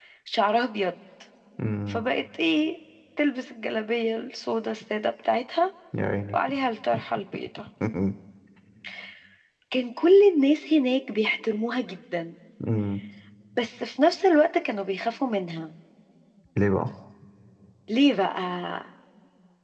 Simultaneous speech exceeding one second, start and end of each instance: none

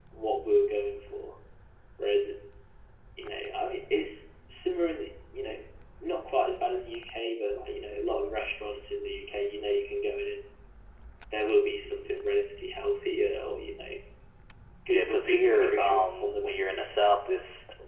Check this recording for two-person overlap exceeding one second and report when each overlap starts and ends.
14.9-16.8

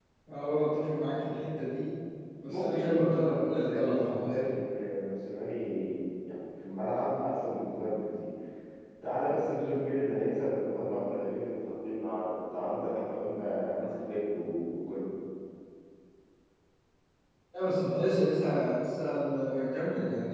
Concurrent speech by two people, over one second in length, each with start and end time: 2.5-4.5

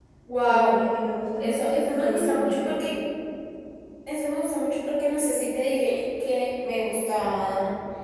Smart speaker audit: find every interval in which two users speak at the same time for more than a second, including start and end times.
1.4-2.8

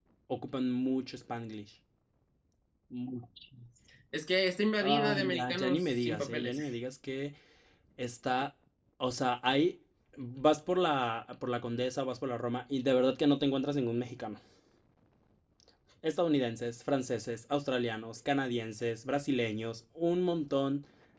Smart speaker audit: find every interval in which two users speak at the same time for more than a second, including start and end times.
4.8-6.6

